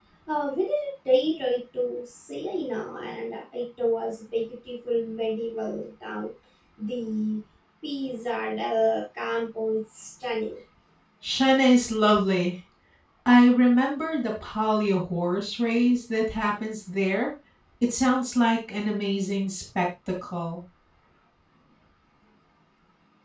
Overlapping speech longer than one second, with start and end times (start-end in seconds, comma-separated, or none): none